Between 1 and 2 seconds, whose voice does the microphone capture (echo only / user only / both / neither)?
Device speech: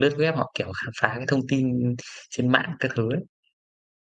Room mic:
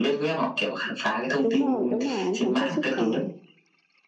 both